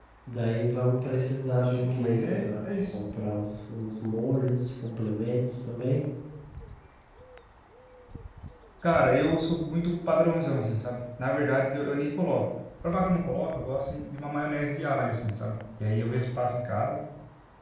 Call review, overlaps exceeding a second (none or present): present